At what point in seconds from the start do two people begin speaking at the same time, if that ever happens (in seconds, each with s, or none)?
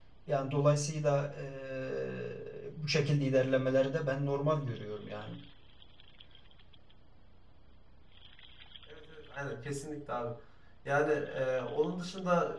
none